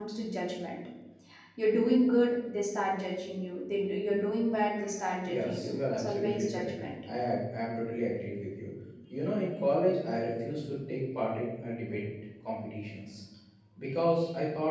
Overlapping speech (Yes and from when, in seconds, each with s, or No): Yes, from 5.2 s